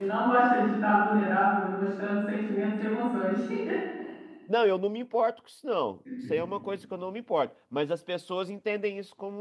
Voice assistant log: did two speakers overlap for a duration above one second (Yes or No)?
No